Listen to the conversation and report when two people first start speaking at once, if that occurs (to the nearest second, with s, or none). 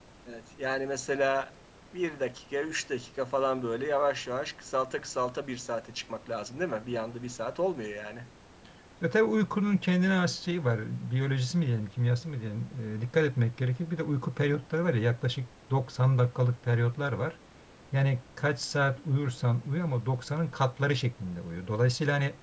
none